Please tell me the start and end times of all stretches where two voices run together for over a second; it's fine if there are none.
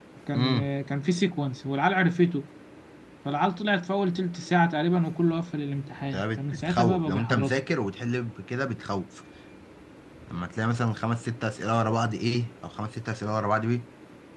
6.1-7.5

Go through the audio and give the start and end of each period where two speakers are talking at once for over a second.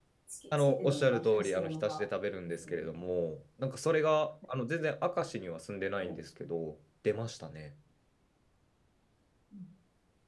0.6-2.0

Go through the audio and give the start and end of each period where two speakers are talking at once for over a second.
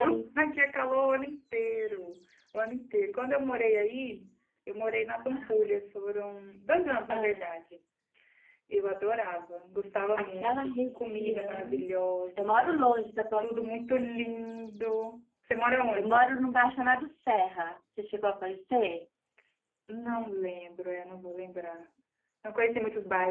10.2-11.8

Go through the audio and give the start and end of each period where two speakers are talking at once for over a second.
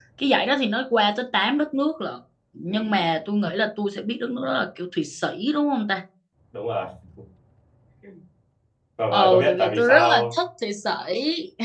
9.1-10.3

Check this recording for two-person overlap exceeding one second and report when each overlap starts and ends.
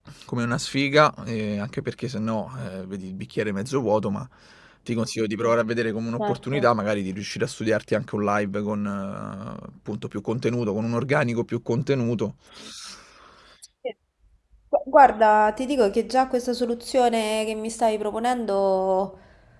none

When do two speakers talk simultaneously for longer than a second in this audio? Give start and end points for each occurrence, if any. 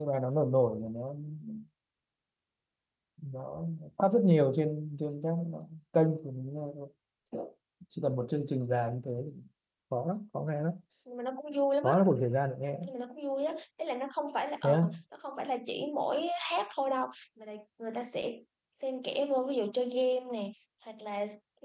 none

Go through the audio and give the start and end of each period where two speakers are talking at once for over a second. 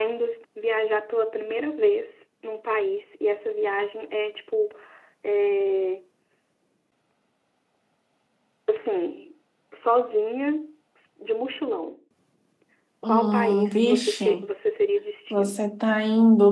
13.0-14.4

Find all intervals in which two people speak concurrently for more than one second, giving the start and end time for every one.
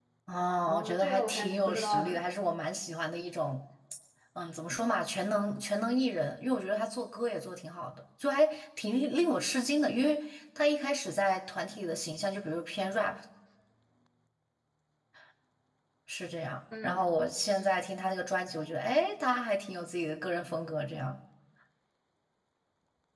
0.7-2.2

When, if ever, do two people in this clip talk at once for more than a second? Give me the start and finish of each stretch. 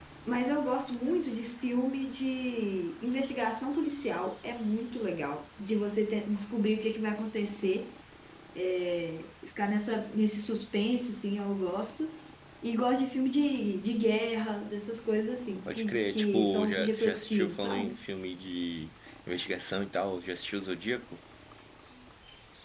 15.7-17.9

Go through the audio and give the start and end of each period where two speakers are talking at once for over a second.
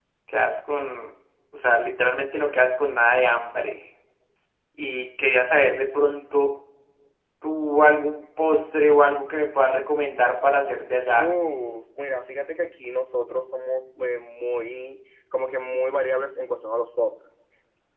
none

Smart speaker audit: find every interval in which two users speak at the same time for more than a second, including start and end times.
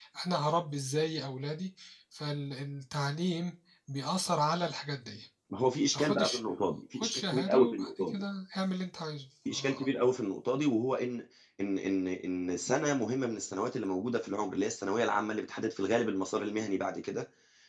7.0-8.2

